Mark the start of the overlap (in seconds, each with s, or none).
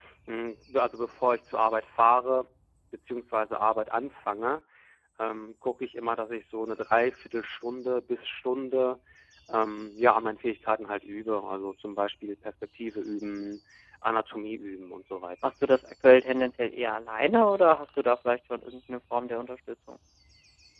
none